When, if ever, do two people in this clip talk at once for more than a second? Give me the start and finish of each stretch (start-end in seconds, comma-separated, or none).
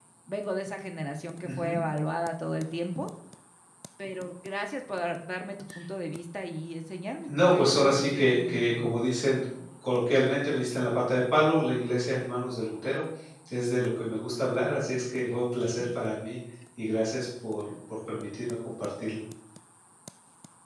7.3-8.9